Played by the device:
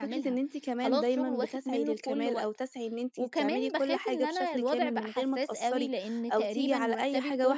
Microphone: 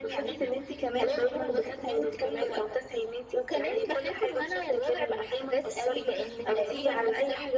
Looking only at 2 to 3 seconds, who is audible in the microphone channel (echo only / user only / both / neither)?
echo only